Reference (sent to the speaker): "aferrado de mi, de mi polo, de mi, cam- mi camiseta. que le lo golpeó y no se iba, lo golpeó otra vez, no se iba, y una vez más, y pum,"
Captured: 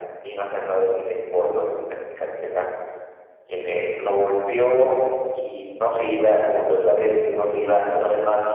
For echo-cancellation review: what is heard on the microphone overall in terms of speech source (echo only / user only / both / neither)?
echo only